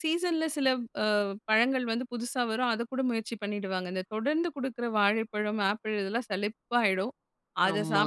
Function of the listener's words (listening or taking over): listening